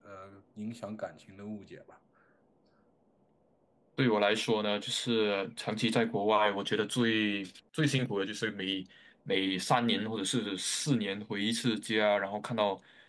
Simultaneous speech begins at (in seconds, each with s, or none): none